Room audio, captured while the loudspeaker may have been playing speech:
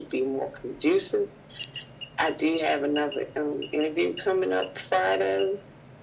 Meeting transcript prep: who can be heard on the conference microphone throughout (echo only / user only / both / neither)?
echo only